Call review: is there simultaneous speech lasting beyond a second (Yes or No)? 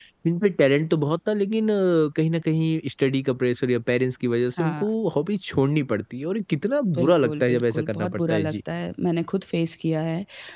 Yes